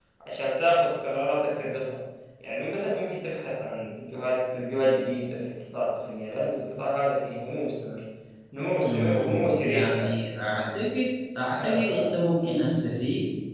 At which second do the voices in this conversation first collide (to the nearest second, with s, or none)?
9 s